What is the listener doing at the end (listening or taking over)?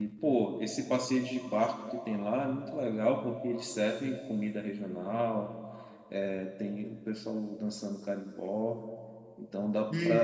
taking over